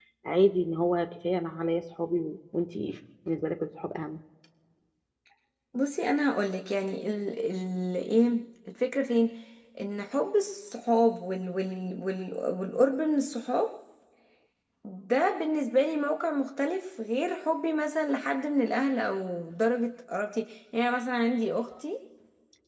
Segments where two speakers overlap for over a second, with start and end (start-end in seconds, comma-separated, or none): none